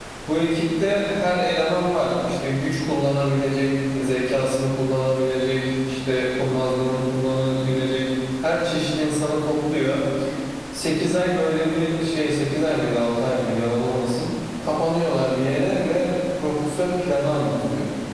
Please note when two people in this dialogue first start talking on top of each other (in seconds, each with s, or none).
none